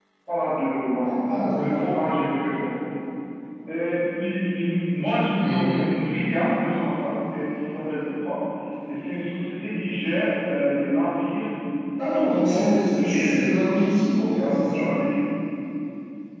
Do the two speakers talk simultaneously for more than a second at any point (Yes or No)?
Yes